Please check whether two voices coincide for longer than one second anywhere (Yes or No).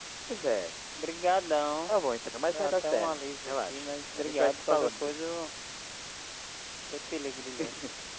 Yes